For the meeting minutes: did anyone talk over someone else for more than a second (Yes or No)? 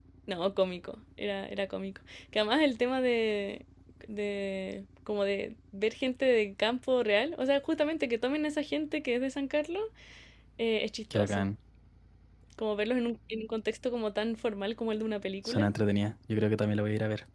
No